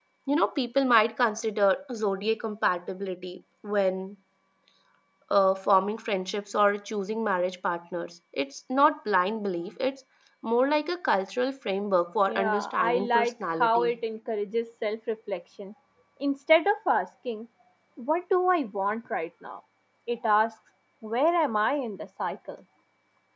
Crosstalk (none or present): present